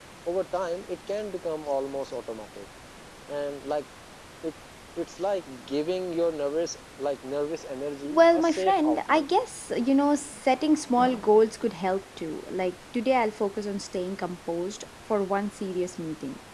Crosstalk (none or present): present